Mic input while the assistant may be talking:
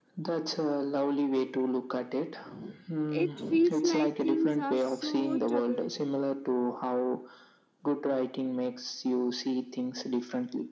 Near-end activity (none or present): present